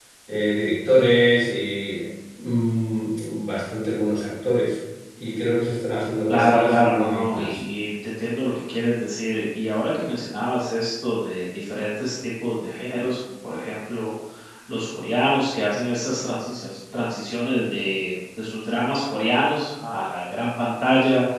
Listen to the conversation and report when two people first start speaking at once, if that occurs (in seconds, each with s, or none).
6.3 s